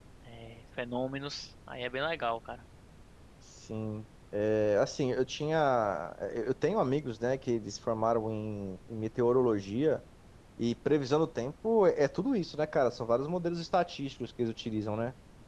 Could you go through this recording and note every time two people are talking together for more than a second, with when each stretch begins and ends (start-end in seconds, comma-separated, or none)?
none